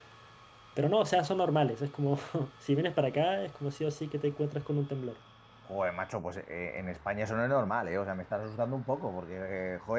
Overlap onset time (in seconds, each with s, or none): none